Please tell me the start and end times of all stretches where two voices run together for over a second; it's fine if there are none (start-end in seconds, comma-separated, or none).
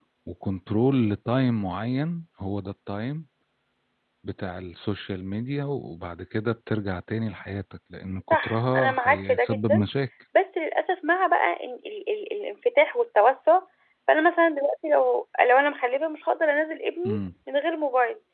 8.3-9.8